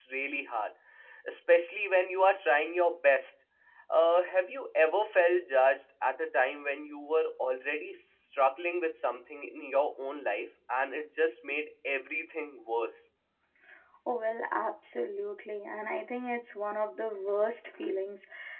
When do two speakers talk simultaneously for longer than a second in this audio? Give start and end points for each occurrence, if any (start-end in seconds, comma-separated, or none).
none